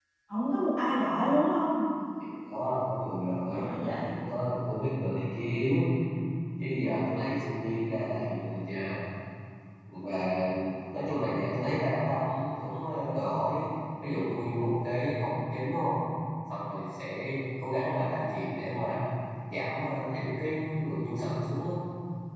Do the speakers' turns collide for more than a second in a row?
No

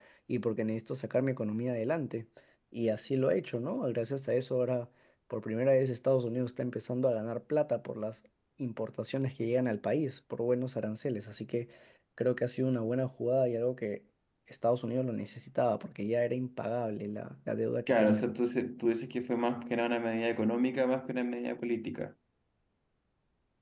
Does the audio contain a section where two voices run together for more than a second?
No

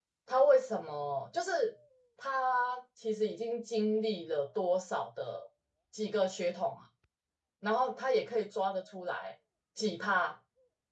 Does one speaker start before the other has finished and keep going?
No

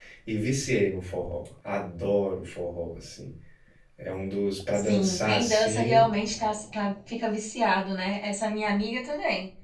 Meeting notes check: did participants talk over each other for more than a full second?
Yes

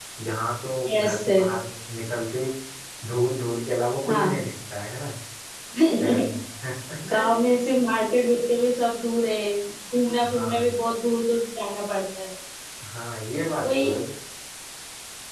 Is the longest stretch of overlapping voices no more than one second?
Yes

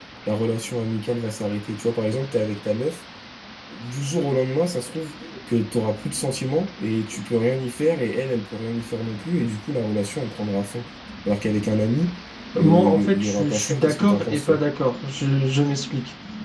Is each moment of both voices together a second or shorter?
No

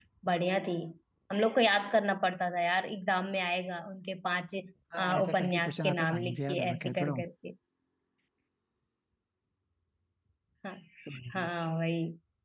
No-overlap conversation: No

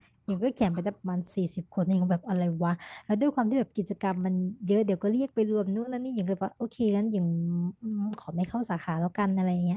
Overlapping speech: No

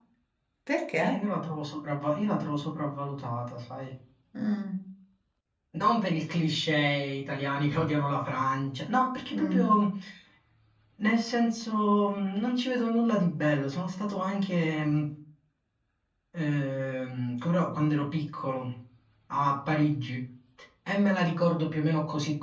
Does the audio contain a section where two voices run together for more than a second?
No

